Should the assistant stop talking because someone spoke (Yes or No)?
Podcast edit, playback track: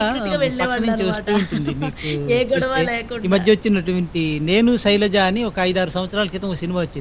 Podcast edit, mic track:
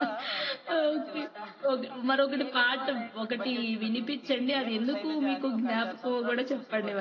Yes